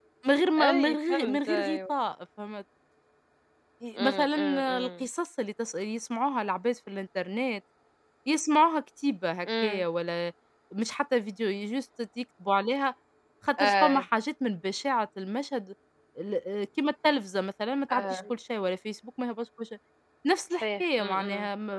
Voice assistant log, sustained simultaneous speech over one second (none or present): present